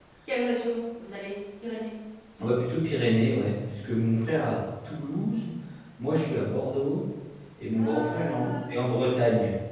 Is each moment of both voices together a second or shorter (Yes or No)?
No